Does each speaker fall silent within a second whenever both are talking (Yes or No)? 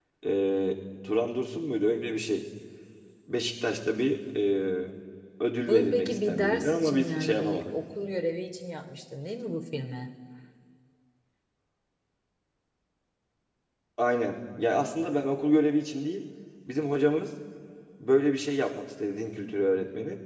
No